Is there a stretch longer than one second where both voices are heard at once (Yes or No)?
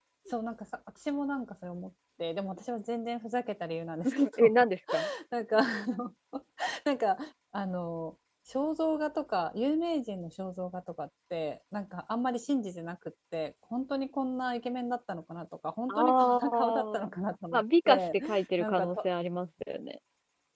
Yes